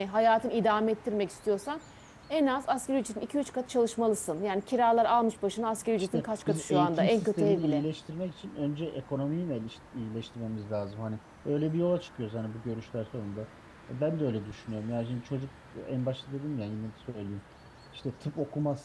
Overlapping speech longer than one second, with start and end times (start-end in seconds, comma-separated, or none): 6.0-7.8